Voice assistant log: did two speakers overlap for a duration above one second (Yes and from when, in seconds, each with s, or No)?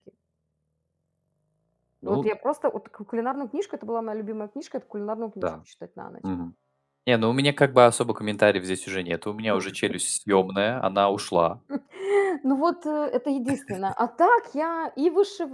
No